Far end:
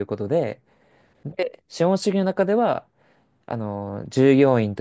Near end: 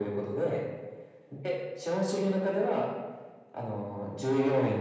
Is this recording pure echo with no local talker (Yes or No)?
Yes